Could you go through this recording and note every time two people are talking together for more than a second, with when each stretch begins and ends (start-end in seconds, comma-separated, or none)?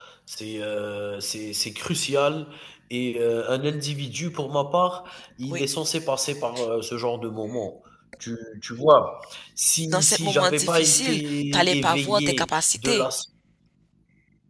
9.8-13.1